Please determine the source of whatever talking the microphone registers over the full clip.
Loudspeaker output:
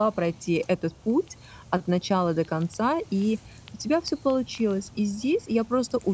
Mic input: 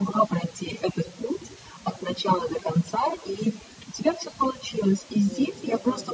both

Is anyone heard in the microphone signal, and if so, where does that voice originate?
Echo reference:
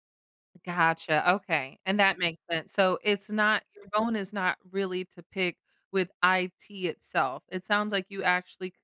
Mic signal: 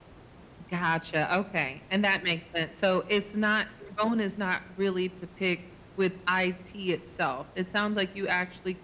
echo only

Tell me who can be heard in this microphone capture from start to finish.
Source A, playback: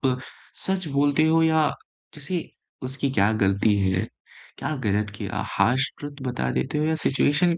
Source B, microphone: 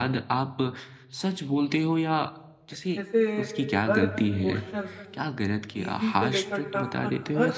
both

